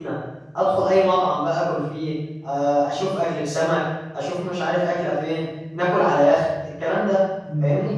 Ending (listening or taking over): taking over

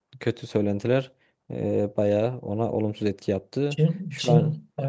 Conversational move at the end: taking over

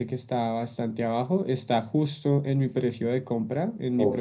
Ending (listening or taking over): taking over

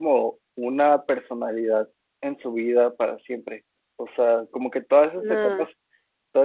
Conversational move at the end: listening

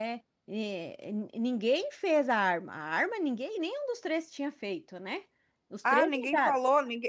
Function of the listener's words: taking over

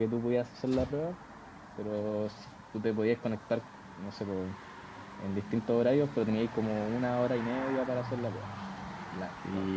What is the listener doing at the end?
listening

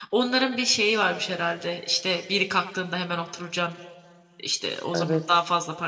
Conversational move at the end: listening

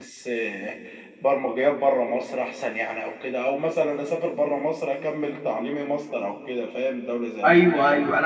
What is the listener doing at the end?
taking over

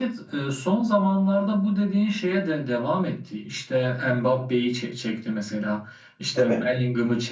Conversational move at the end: listening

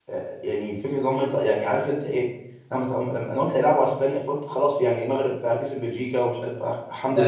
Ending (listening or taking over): taking over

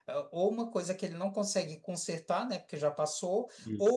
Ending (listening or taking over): listening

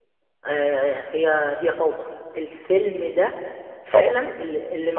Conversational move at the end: listening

